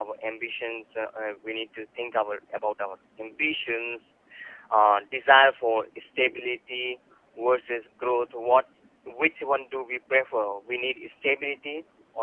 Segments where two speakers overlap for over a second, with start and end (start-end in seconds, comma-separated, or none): none